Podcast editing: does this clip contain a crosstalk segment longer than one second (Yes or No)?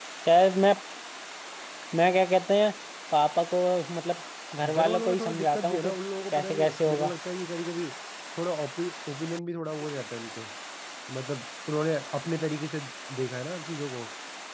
Yes